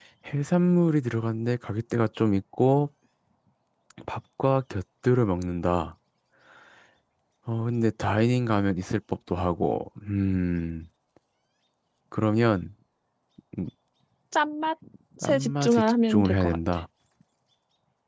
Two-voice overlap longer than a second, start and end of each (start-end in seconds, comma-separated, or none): 15.2-16.6